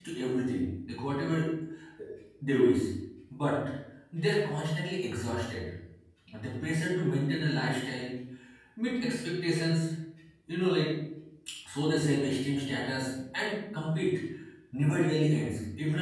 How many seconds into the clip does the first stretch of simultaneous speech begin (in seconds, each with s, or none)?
none